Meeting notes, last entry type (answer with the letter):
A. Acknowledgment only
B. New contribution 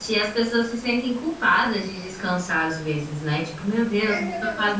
B